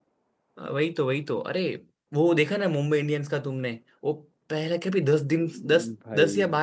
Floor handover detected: No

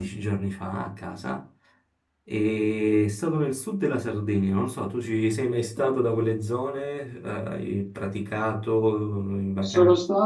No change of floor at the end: No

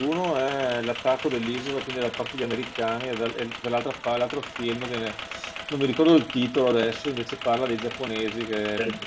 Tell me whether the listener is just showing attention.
Yes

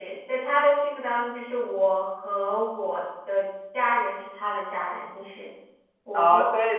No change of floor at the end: No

